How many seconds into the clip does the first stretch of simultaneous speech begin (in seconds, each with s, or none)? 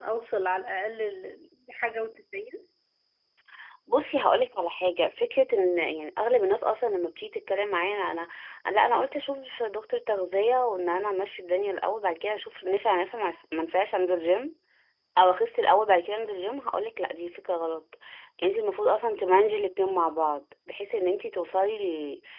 none